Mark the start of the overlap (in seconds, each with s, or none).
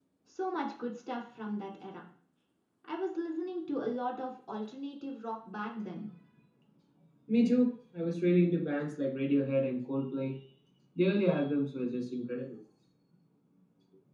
none